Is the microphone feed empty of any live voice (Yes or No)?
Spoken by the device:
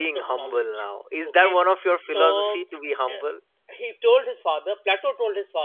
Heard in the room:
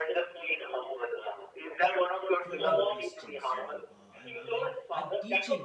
No